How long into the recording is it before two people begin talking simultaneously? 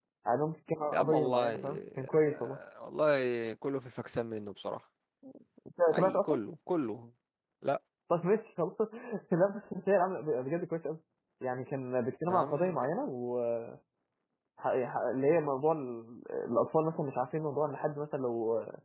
0.9 s

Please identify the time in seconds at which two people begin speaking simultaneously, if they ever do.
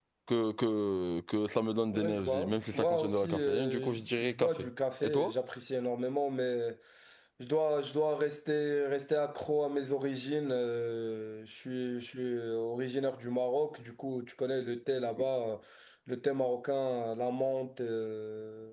1.9 s

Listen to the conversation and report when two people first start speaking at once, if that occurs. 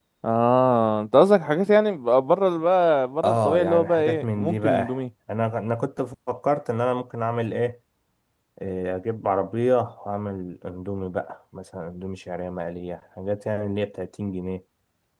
3.2 s

